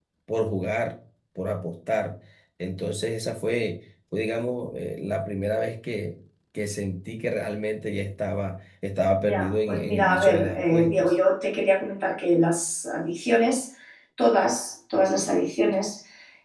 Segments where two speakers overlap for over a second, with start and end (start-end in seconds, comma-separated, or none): 9.2-11.1